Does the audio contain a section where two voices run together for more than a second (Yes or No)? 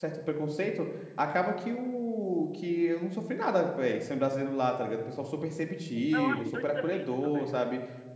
Yes